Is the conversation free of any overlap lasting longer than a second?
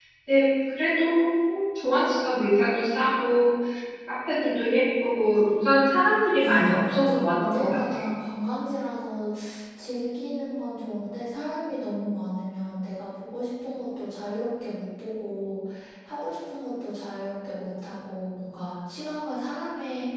No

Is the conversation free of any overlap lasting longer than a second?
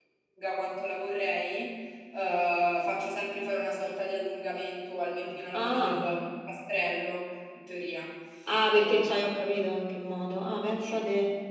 Yes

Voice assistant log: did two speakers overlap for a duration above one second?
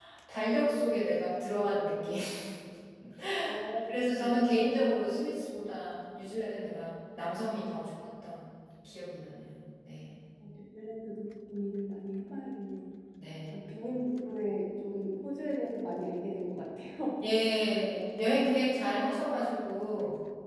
No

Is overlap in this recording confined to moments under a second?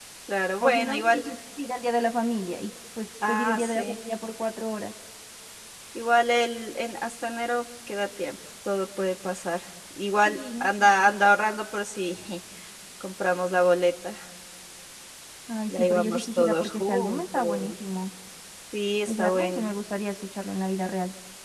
No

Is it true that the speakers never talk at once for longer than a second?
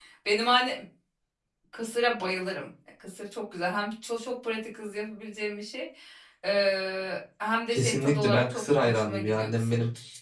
No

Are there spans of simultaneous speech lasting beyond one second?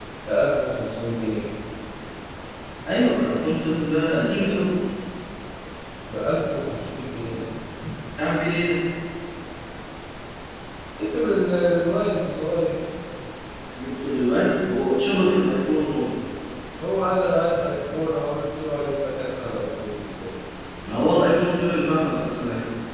No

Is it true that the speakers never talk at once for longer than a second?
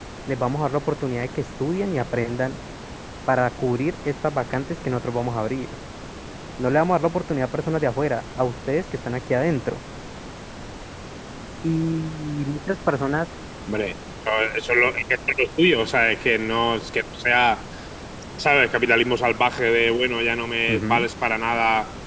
Yes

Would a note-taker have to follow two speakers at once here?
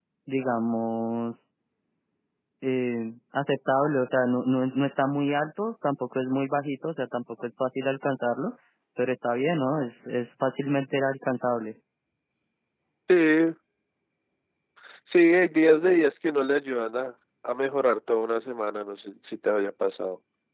No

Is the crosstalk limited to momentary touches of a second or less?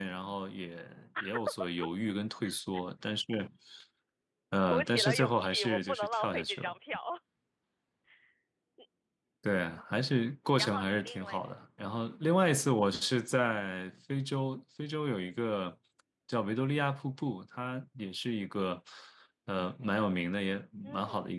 No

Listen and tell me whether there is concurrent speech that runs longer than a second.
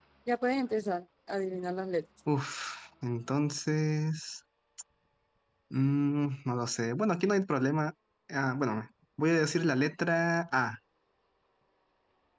No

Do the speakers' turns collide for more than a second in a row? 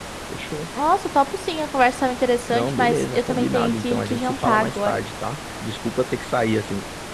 Yes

